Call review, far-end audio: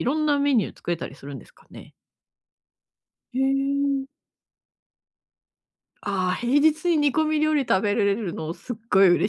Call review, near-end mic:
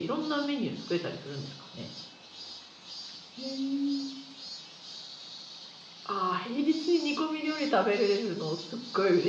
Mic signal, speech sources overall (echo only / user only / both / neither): echo only